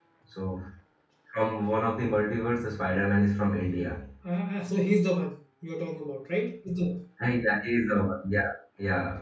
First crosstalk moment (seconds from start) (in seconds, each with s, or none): none